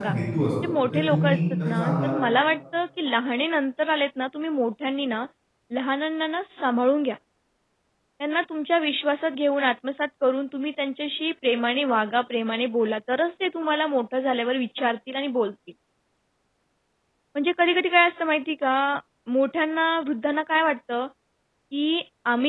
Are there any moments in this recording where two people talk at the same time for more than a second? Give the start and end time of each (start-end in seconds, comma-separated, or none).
0.8-2.2